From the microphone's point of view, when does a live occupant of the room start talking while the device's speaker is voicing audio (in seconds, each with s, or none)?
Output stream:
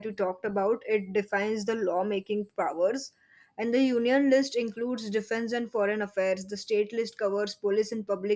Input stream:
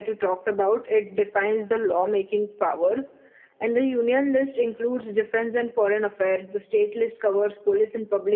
none